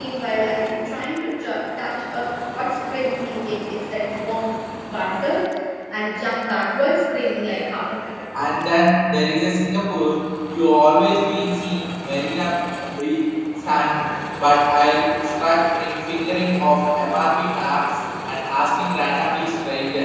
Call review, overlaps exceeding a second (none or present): none